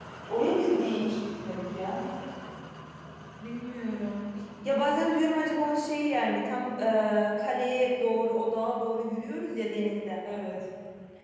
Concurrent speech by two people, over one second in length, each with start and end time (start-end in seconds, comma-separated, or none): none